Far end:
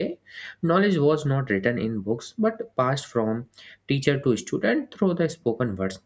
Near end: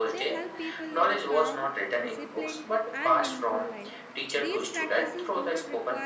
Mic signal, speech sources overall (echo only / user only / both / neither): both